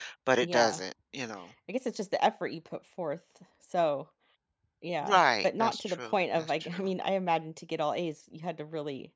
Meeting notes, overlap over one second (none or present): present